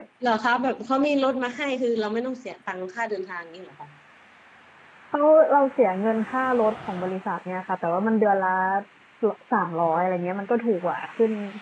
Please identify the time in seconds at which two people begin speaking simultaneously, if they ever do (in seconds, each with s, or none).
none